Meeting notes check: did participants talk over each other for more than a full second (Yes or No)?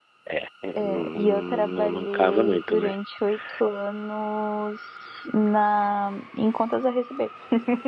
Yes